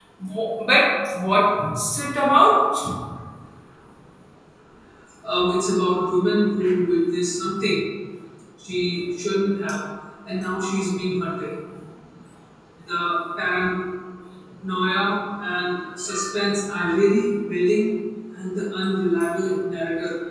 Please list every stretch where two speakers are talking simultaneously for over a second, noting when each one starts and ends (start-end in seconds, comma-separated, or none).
none